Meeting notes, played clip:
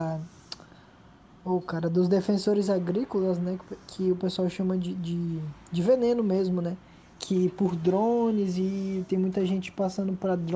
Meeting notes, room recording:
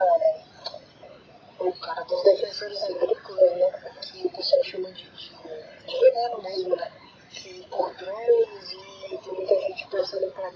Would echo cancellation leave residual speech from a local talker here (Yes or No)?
No